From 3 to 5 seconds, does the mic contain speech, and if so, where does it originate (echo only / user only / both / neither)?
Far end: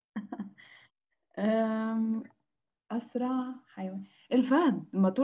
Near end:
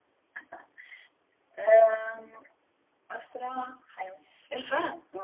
echo only